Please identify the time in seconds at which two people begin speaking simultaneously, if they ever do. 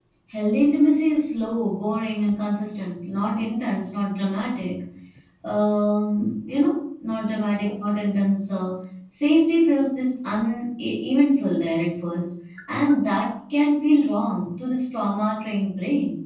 none

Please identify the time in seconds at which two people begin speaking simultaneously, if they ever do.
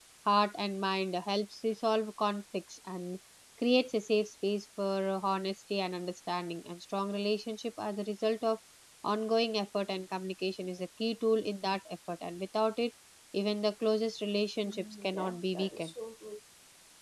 14.6 s

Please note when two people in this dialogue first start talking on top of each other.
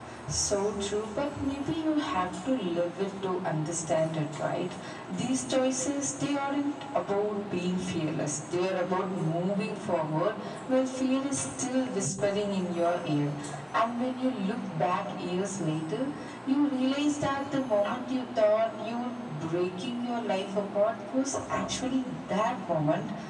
none

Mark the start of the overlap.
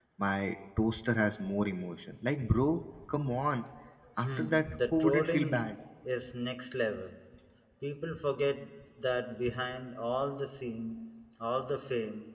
4.2 s

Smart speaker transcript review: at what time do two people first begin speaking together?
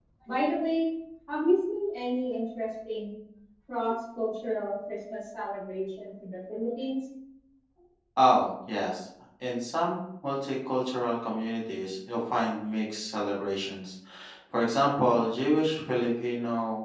none

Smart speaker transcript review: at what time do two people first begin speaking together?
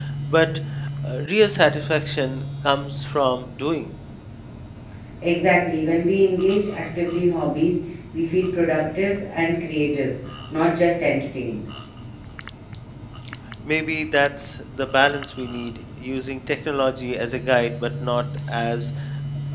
none

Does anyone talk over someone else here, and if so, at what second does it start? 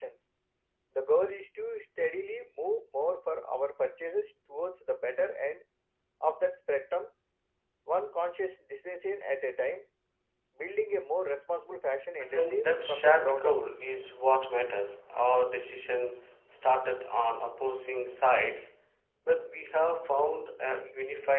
12.3 s

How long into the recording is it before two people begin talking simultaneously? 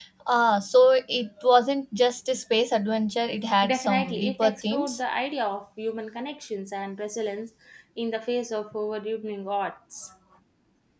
3.6 s

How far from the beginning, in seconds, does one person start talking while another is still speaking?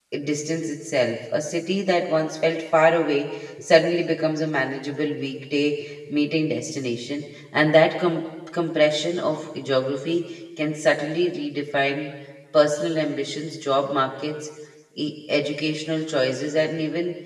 none

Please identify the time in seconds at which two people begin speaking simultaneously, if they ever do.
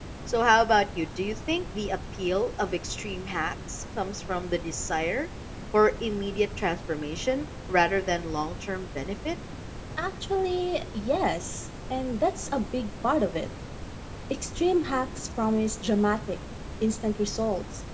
none

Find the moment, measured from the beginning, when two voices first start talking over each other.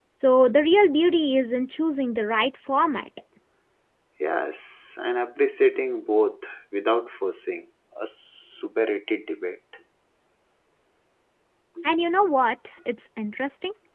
none

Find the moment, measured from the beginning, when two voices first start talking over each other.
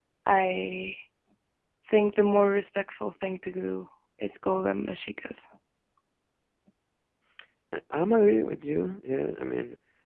none

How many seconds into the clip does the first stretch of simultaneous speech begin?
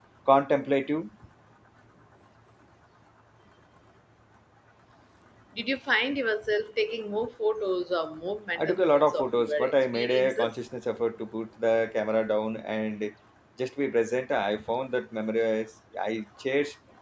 8.6 s

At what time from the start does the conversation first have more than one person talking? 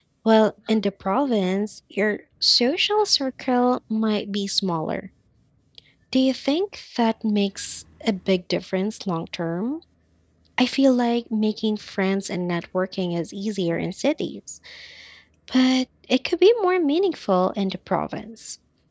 none

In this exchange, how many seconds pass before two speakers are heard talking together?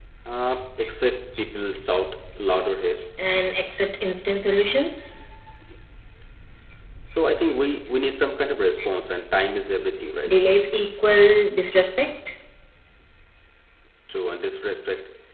none

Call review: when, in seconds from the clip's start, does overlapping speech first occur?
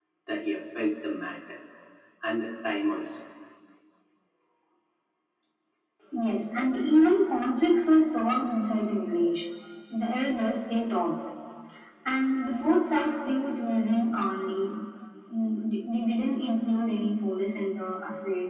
none

